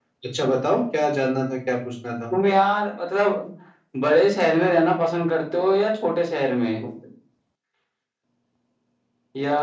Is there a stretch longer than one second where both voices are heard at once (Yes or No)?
No